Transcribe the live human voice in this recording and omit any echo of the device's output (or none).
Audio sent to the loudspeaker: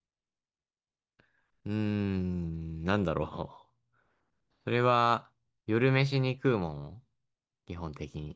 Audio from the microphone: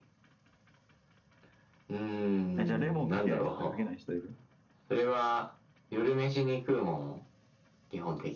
えじゃあレモンかける人とかけない人いる。